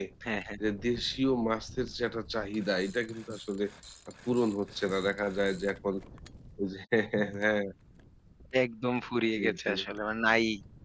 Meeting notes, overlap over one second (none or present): none